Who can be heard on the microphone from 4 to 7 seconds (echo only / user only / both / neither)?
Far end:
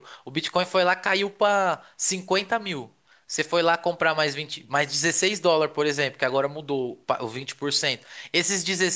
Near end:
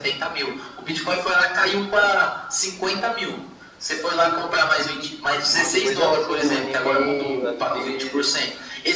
both